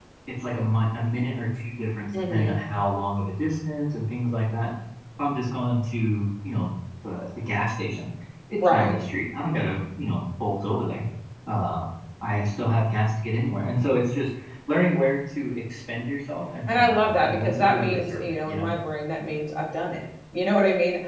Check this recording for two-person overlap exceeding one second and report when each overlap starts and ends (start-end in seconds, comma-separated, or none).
16.7-18.7